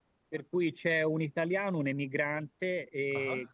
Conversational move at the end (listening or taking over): listening